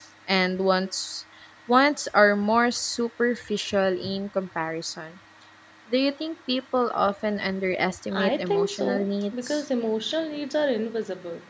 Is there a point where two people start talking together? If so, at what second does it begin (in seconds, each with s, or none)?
8.1 s